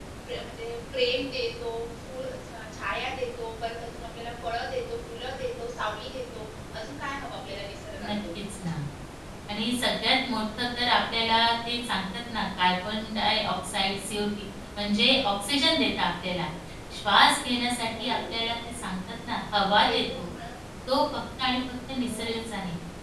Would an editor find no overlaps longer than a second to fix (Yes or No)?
Yes